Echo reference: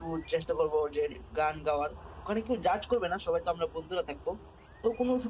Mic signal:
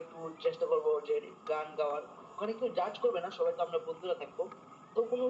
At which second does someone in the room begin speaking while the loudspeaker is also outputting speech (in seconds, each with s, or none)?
none